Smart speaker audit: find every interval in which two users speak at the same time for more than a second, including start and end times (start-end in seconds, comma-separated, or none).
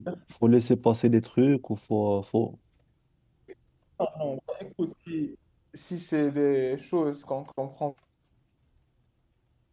none